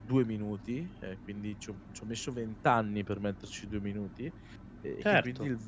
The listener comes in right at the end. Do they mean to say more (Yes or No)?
No